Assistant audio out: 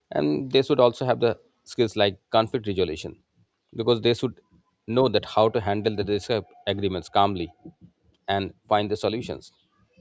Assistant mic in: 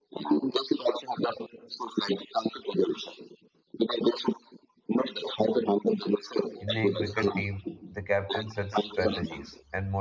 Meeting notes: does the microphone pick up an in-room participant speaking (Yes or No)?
Yes